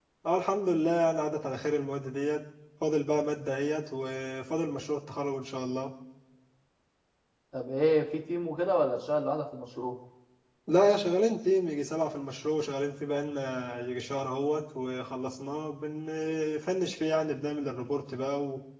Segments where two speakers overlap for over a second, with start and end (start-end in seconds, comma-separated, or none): none